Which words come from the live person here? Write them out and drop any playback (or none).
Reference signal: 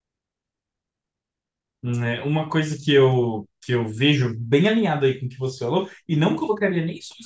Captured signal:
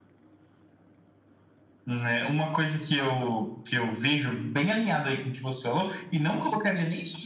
none